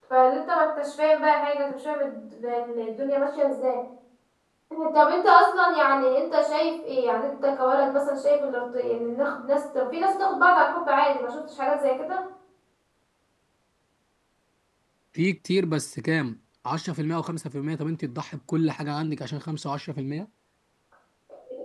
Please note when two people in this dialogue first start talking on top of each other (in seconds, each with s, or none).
none